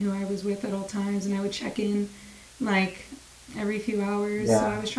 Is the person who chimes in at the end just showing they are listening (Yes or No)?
Yes